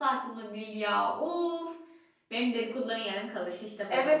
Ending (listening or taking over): taking over